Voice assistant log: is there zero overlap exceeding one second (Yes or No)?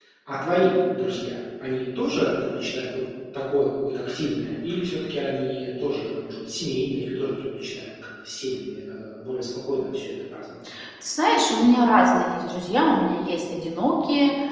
Yes